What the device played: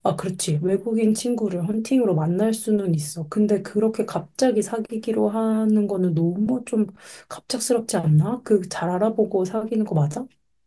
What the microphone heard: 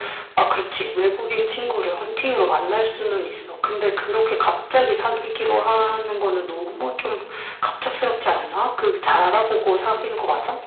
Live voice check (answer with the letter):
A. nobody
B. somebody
A